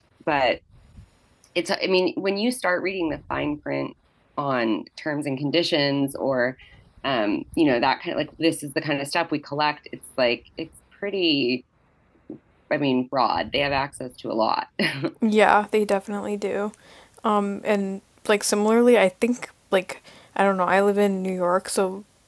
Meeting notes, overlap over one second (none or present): none